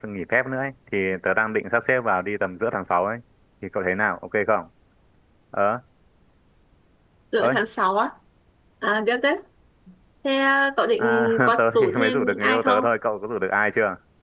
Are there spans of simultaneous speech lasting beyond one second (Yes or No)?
Yes